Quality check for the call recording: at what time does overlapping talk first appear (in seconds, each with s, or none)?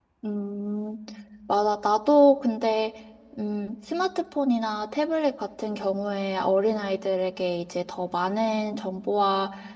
none